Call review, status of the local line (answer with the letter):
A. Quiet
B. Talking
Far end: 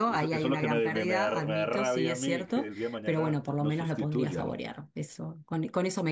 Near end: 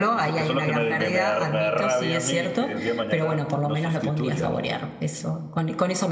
A